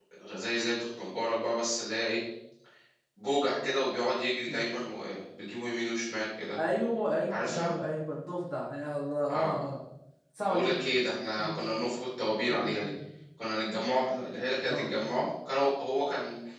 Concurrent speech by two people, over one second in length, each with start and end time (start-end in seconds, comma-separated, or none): none